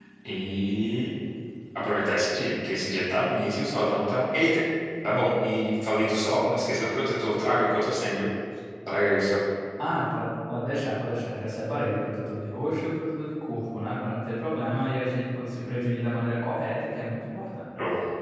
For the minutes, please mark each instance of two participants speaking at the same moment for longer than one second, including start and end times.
none

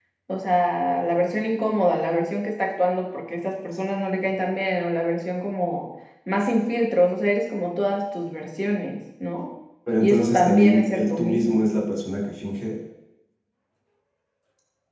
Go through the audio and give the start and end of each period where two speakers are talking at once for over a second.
10.0-11.7

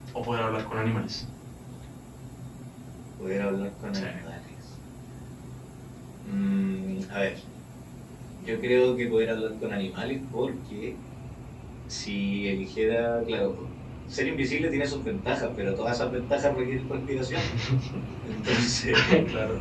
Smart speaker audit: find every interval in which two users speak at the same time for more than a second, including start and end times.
none

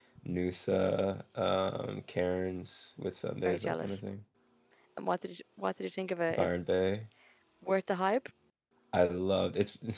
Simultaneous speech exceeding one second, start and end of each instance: none

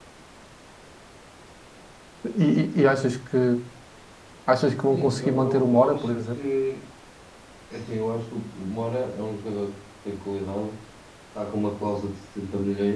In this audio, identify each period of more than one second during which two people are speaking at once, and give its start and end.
4.9-6.5

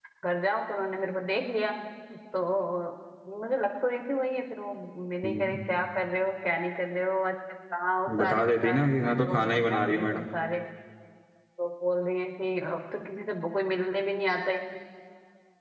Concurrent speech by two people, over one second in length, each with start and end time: 8.2-10.2

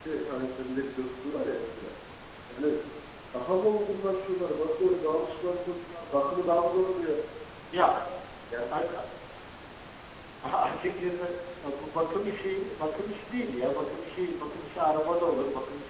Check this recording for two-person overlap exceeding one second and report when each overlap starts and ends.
none

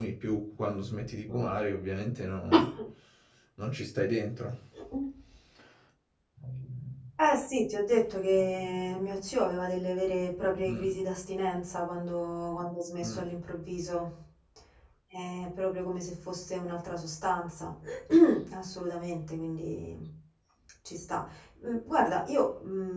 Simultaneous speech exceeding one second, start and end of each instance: none

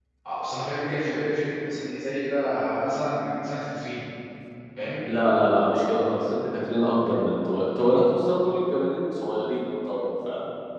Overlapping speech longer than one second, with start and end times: none

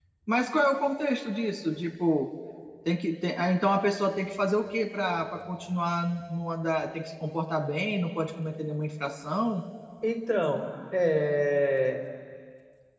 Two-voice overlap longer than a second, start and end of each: none

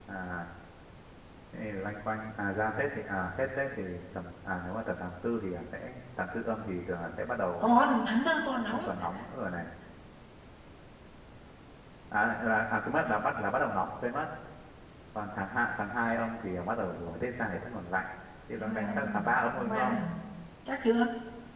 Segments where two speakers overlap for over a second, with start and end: 18.6-20.0

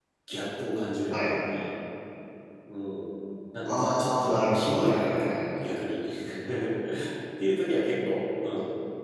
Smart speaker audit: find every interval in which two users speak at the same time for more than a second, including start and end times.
3.6-5.4

